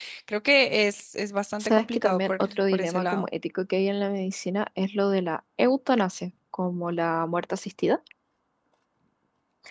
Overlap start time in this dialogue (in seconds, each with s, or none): 1.6 s